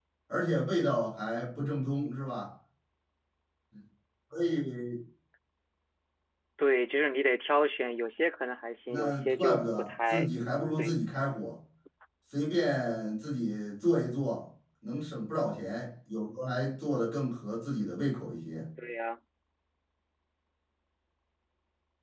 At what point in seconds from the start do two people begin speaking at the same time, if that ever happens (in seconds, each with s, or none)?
8.9 s